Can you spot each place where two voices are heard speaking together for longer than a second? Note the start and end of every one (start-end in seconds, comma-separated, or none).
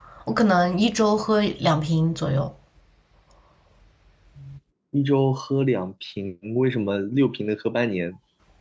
none